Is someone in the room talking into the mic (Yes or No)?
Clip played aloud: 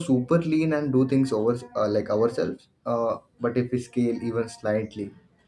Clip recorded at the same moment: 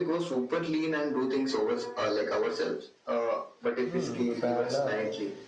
Yes